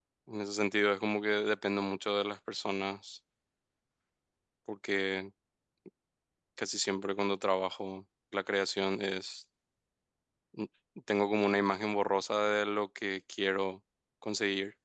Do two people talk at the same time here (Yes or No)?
No